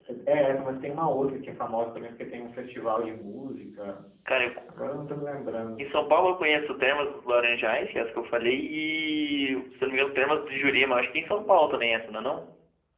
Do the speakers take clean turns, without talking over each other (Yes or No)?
Yes